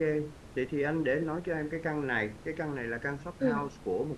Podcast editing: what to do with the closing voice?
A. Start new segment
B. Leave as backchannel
B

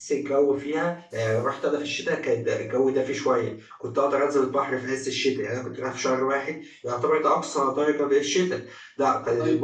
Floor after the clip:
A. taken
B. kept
B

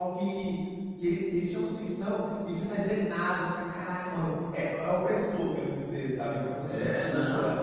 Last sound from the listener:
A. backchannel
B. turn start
B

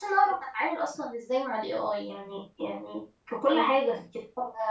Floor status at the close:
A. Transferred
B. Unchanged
B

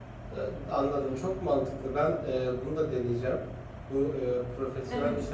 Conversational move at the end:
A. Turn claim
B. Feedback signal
B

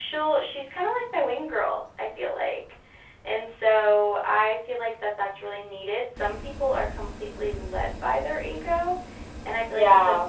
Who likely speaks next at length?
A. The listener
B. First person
B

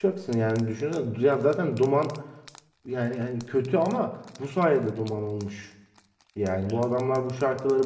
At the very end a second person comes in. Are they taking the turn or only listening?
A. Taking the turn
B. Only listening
B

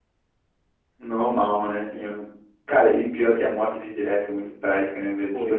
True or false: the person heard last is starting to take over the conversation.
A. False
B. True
A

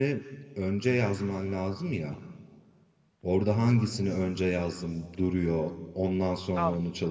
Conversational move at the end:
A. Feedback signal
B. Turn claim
B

